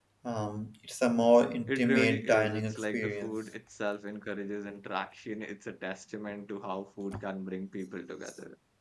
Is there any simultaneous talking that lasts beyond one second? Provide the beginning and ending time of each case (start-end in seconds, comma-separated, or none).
1.7-3.3